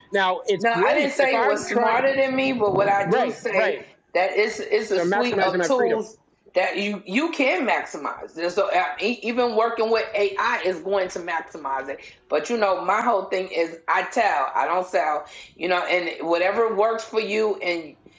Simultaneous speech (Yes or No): Yes